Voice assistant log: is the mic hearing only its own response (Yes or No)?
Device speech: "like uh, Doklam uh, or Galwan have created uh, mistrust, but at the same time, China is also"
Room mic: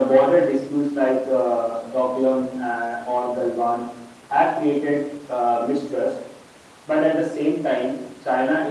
Yes